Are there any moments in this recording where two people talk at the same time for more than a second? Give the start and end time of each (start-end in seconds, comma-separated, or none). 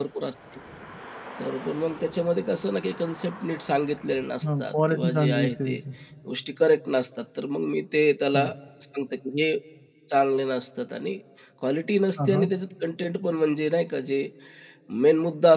4.4-5.8